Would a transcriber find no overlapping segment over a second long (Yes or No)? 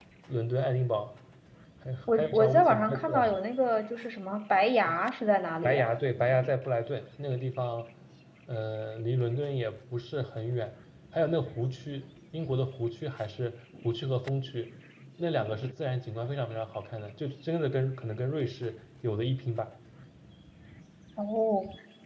No